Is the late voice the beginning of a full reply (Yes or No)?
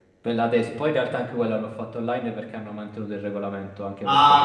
Yes